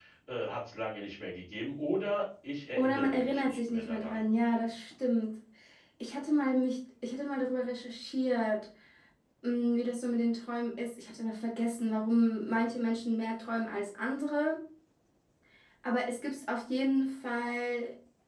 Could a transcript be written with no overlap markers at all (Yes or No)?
No